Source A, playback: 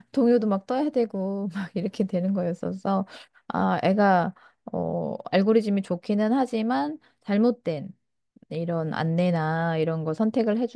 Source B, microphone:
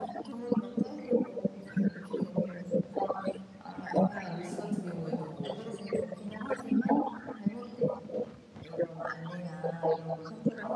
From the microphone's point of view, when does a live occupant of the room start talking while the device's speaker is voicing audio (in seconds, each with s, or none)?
4.2 s